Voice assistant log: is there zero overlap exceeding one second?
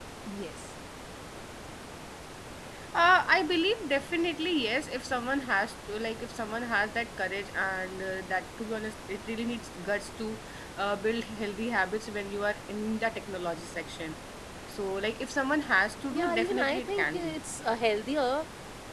No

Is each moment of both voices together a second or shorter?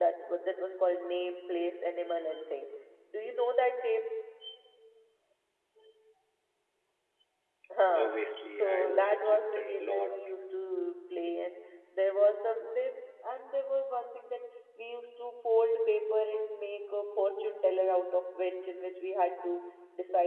No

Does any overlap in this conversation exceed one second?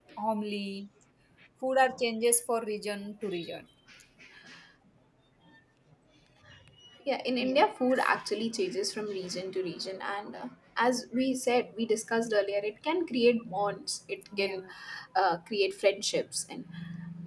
No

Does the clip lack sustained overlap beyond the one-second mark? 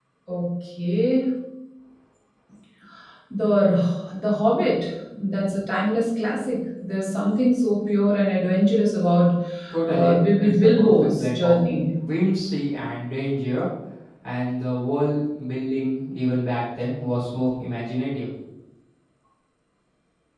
No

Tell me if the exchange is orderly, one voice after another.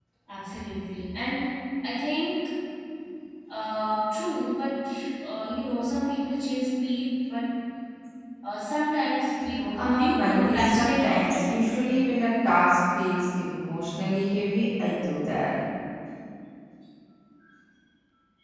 No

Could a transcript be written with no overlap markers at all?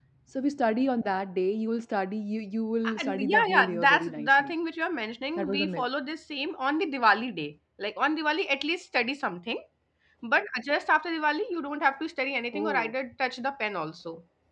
No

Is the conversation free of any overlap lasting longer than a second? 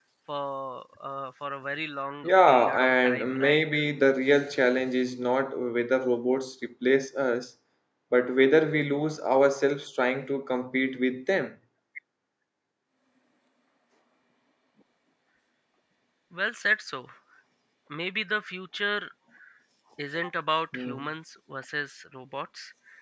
No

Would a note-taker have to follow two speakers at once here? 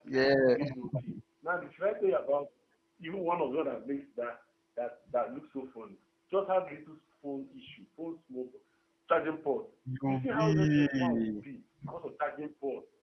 Yes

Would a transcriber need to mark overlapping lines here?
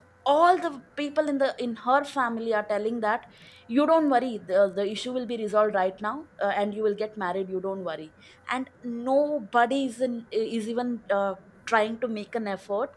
No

